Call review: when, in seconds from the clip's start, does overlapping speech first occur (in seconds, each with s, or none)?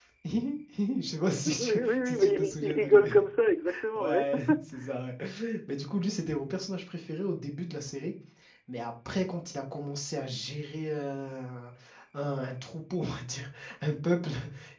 1.4 s